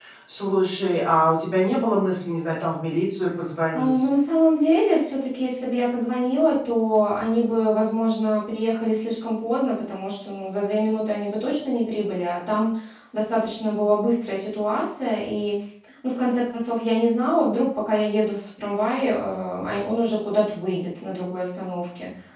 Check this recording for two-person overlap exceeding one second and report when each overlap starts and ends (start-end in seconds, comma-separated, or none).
none